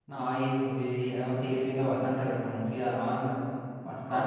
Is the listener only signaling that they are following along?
No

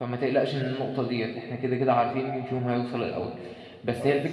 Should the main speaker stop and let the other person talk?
No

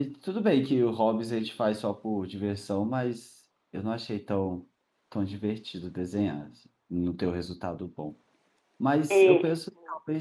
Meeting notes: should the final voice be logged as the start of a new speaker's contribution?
No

